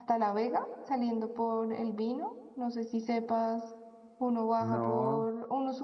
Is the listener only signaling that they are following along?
Yes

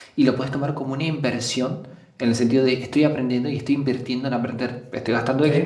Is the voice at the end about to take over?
No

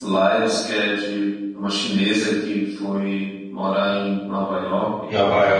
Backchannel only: No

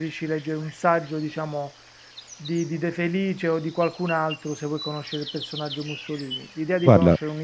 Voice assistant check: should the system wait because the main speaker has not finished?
Yes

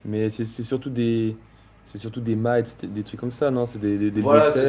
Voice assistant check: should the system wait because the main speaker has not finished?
No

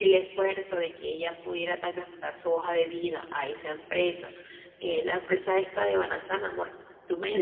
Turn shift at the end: Yes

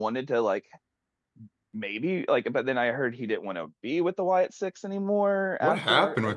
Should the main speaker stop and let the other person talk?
Yes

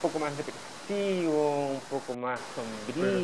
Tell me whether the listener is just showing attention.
Yes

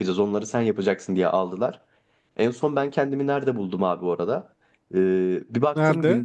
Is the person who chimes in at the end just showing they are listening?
Yes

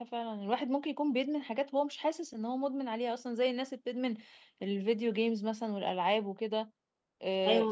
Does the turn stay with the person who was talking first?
Yes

